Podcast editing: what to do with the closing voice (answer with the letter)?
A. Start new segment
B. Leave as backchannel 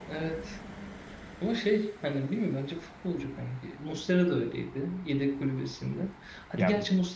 B